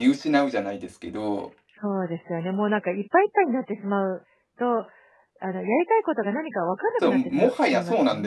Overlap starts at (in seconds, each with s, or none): 7.0 s